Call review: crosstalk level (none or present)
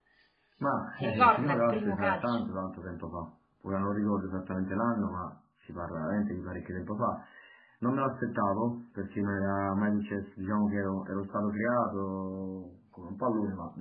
present